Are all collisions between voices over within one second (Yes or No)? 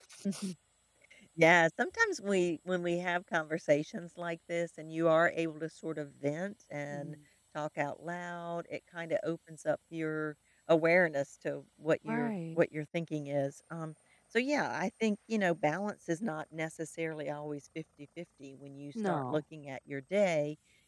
Yes